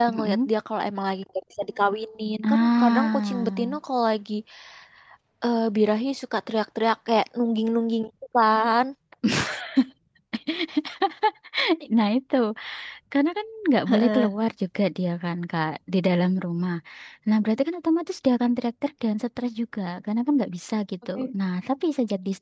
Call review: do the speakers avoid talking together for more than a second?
No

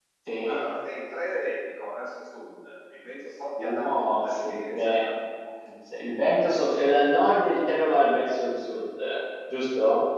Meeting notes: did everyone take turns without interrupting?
No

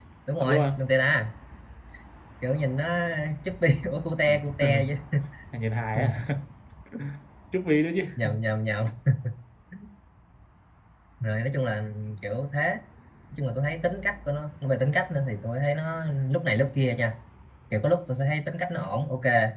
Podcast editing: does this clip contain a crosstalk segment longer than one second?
No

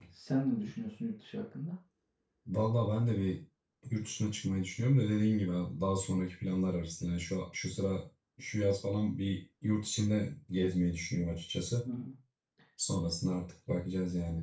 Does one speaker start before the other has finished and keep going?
No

